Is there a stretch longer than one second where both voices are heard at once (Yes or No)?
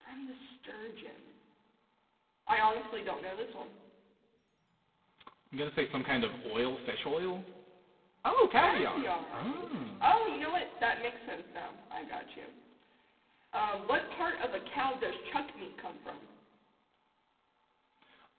Yes